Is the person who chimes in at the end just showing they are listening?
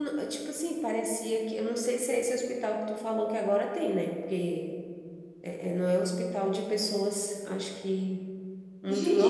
No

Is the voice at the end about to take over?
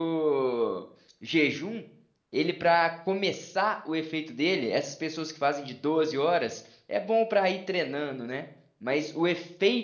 No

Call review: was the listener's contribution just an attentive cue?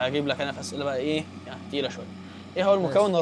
Yes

